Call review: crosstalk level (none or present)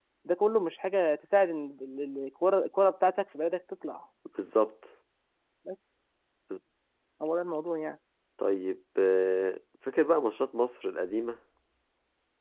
none